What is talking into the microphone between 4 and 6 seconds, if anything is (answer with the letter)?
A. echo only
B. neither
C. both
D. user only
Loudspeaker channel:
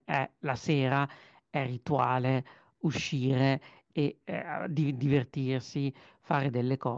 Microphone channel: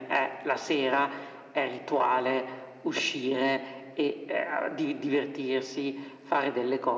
A